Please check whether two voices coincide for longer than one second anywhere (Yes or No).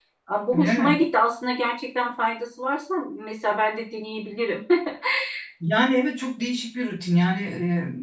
No